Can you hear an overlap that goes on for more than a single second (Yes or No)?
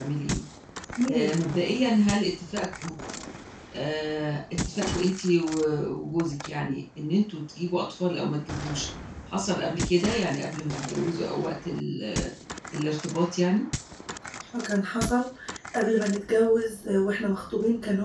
No